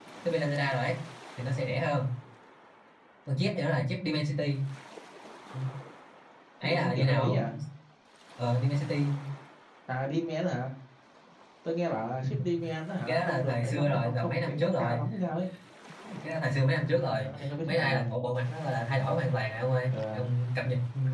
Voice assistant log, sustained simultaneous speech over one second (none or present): present